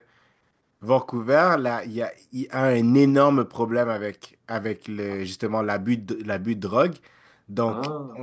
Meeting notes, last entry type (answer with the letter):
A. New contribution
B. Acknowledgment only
B